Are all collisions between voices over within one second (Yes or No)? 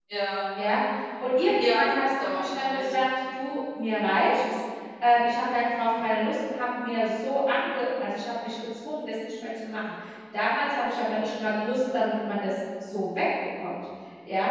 No